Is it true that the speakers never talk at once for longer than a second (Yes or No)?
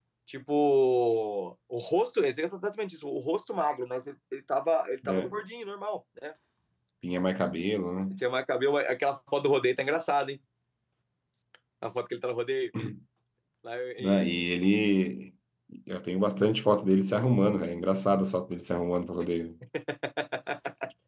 Yes